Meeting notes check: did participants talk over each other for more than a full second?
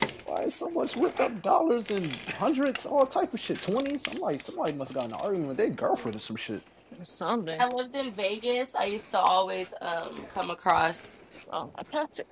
No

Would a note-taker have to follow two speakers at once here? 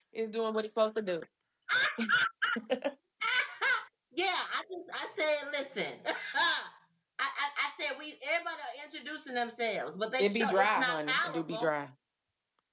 Yes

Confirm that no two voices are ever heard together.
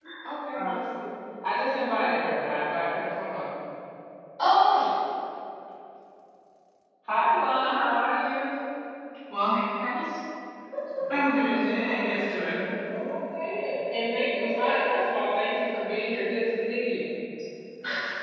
No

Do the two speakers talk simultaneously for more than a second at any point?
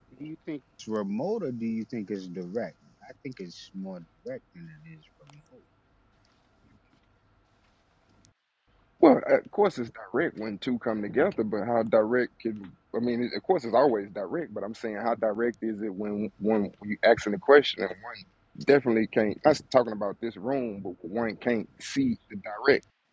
No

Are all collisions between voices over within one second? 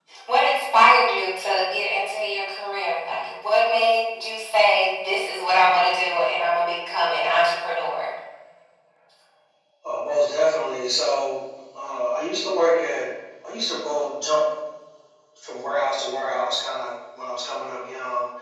Yes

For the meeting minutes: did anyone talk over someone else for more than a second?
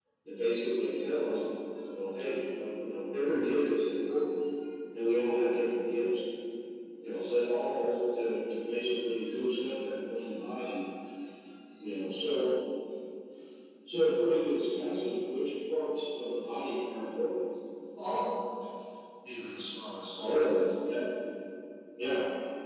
No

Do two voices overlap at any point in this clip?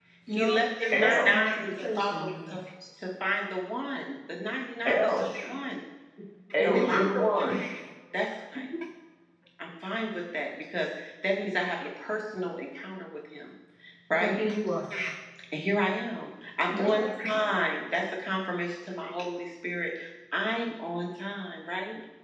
Yes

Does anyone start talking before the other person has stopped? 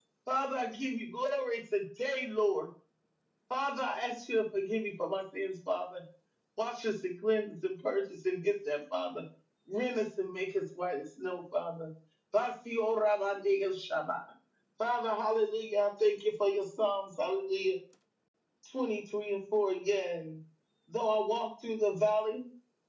No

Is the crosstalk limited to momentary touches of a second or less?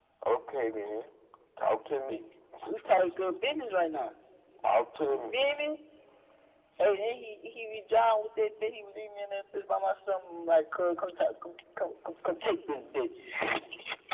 Yes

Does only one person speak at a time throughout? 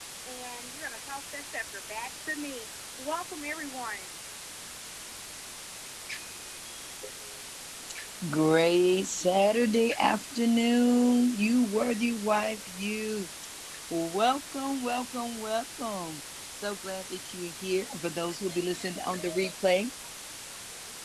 Yes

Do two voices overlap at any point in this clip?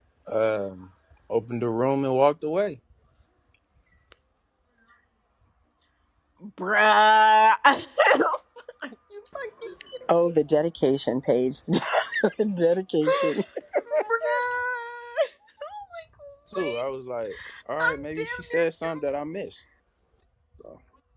Yes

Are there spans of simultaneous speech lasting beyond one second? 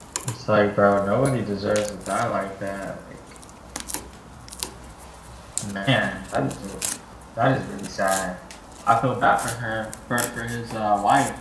No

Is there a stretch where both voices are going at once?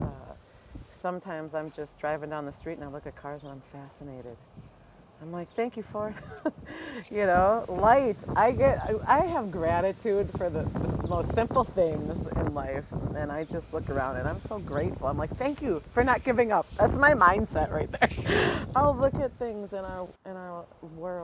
No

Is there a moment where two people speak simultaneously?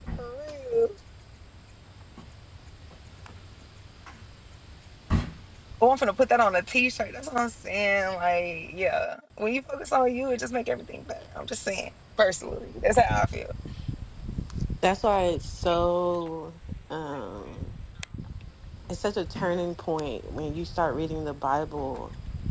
No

